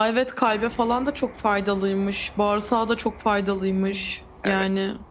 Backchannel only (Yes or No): No